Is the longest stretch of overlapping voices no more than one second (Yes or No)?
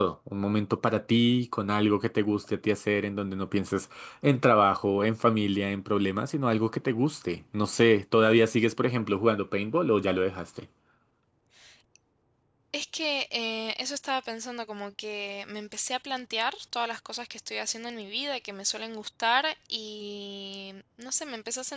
Yes